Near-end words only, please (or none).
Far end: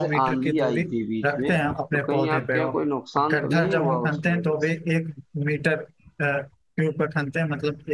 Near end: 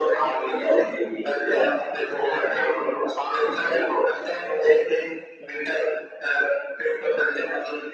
none